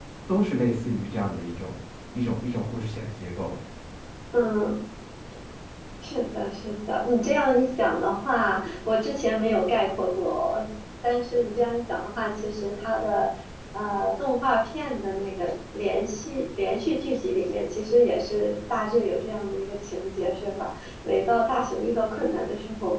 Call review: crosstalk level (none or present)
none